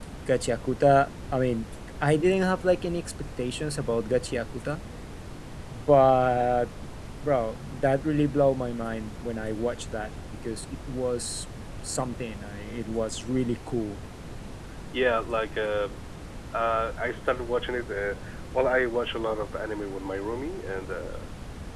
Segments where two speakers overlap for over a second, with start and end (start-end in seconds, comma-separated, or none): none